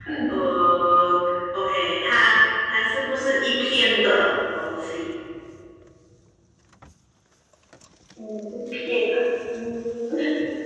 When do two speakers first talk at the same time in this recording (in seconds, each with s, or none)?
none